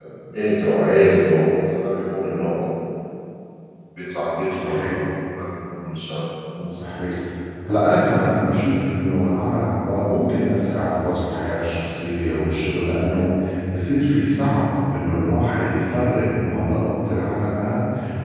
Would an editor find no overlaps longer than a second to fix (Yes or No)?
Yes